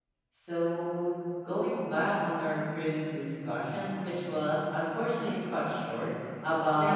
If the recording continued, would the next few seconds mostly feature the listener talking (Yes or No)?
No